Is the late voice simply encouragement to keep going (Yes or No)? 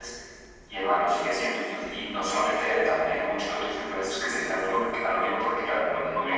No